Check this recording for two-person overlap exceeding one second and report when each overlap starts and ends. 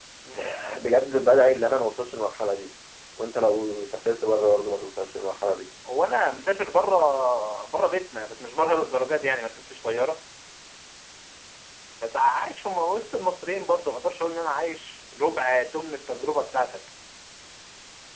none

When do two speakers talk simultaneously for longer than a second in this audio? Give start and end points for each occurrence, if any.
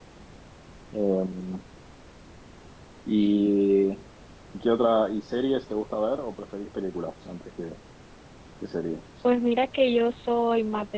none

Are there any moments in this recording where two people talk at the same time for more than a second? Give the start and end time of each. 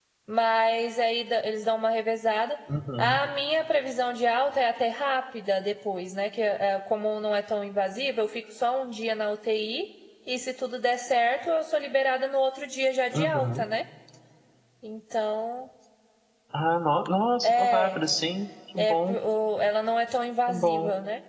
none

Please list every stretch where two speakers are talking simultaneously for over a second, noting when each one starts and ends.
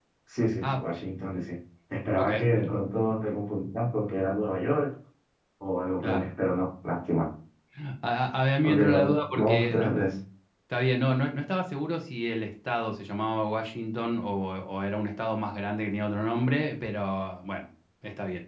8.6-9.9

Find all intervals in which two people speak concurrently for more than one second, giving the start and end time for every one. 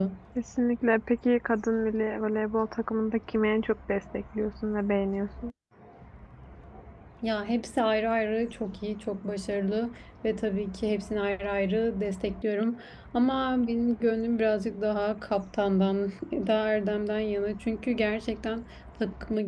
none

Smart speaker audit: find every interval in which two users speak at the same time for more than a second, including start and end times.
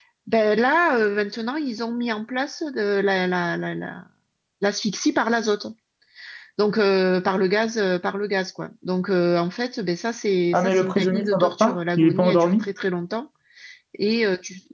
10.5-12.6

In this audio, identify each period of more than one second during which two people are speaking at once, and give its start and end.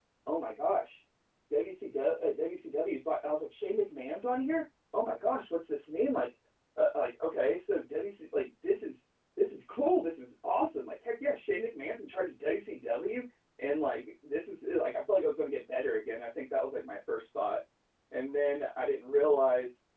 none

